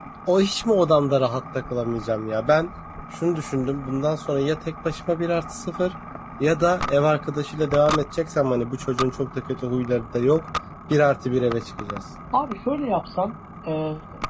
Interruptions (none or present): none